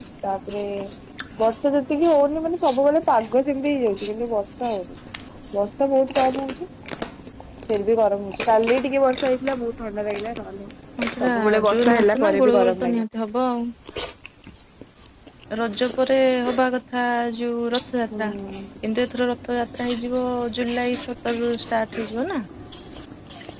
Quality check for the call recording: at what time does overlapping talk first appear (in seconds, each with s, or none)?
11.2 s